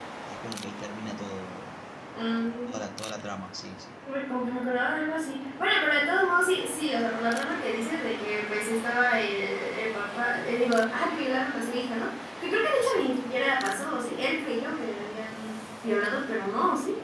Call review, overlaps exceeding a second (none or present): none